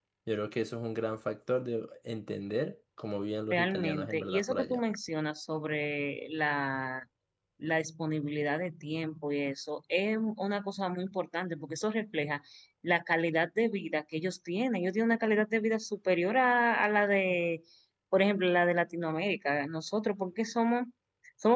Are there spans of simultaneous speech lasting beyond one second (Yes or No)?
Yes